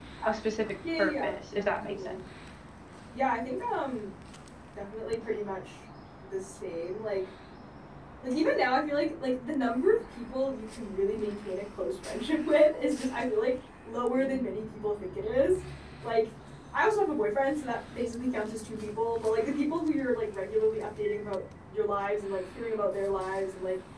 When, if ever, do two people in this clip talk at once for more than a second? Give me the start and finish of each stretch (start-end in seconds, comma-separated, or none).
1.0-2.2